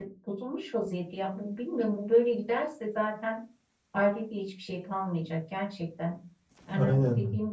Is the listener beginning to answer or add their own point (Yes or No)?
No